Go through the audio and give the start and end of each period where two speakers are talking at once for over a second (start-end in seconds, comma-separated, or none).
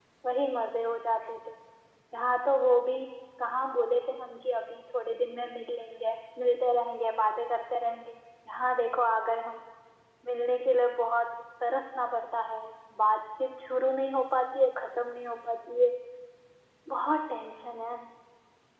none